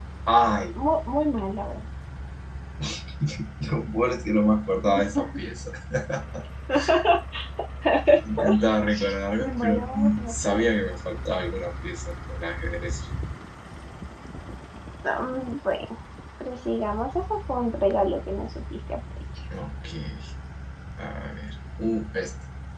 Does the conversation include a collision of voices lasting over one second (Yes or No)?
Yes